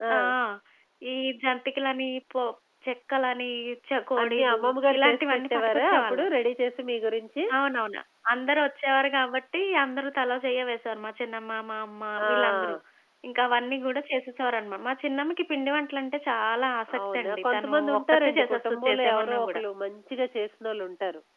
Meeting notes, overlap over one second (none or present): present